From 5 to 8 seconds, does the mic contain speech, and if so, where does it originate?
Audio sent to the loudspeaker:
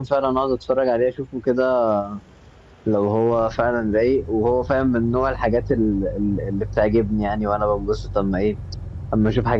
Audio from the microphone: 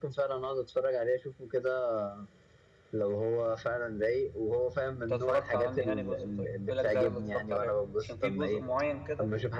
both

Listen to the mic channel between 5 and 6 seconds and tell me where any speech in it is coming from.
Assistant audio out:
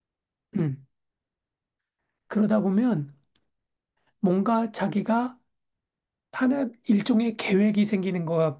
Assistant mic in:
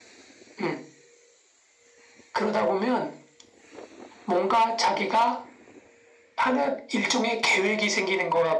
echo only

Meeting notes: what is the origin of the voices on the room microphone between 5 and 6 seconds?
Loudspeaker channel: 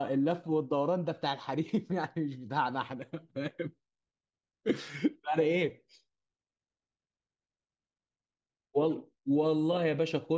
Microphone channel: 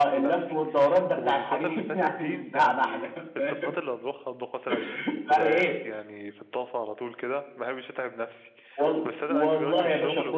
both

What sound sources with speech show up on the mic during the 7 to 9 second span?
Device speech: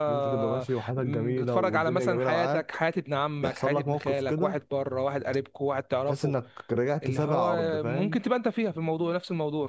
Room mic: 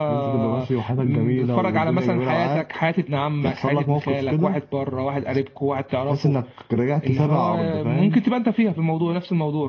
echo only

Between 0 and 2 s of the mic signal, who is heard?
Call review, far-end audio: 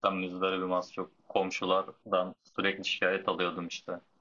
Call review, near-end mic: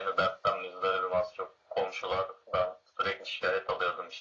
echo only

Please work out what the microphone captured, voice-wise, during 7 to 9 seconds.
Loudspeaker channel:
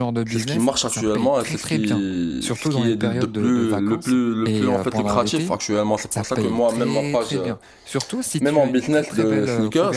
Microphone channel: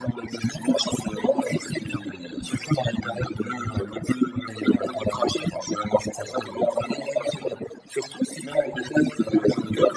echo only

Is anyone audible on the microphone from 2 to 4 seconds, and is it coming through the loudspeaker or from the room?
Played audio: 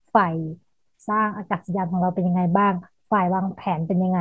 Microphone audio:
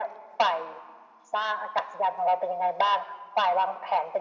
echo only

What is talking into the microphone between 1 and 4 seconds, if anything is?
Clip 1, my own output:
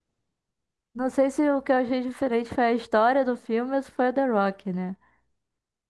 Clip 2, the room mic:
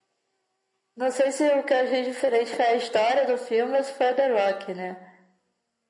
echo only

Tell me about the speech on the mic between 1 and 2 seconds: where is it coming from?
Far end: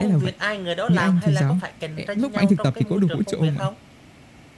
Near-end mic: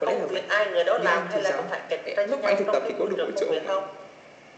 echo only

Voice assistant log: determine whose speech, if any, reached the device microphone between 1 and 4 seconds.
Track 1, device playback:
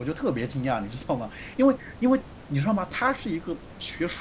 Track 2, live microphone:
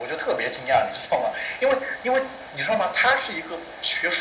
echo only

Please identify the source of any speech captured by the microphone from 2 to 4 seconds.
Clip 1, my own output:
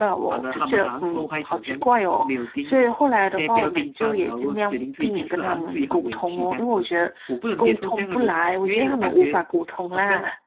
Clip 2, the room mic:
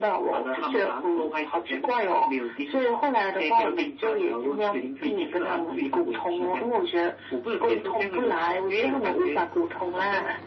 echo only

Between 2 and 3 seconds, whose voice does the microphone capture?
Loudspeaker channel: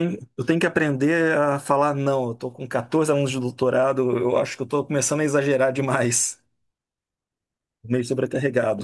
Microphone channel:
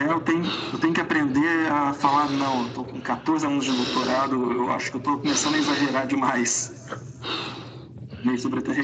echo only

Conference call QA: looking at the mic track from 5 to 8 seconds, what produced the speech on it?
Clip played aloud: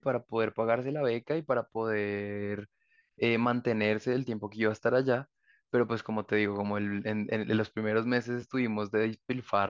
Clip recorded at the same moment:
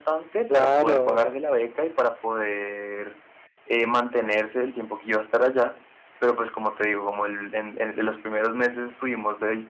echo only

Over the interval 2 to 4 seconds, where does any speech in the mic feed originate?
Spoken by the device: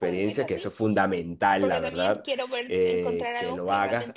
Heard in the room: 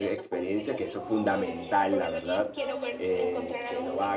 both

